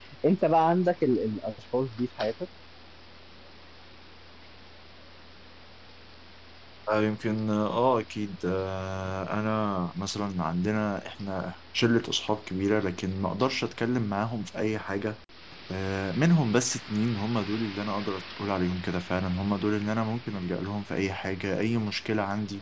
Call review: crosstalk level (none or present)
none